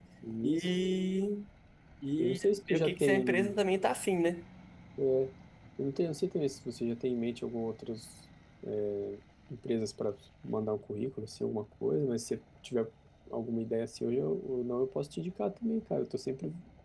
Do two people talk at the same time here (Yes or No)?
Yes